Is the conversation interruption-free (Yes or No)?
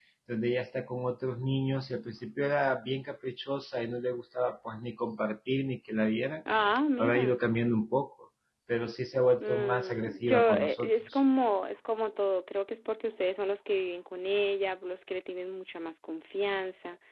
No